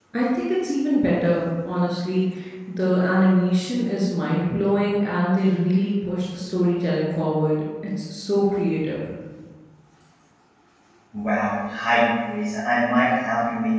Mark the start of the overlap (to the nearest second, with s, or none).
none